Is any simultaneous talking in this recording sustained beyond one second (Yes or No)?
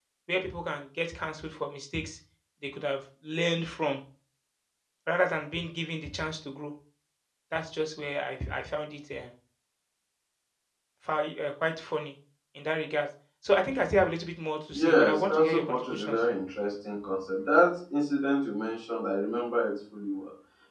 Yes